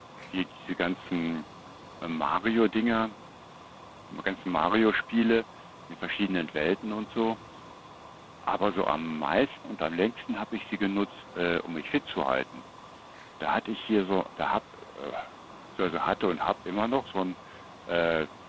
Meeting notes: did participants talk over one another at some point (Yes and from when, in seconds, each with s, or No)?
No